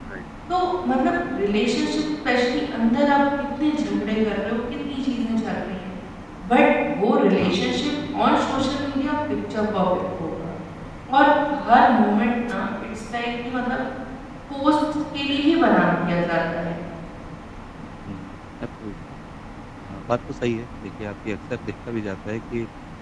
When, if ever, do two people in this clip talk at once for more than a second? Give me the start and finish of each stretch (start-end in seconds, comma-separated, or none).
none